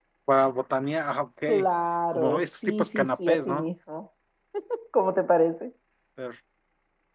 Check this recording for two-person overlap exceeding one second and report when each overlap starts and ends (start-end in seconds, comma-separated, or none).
2.1-3.6